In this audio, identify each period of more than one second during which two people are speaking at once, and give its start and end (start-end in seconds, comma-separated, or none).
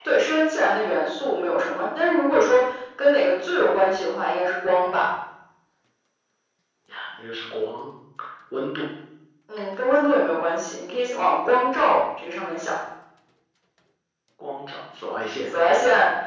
none